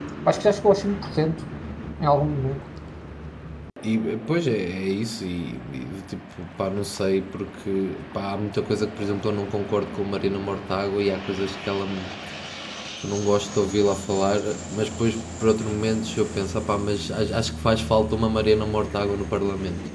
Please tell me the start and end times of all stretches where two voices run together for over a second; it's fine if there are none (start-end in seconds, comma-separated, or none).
none